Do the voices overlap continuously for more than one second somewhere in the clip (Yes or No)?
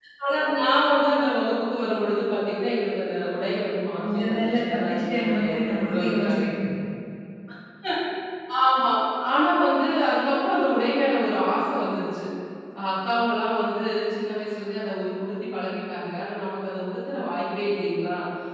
Yes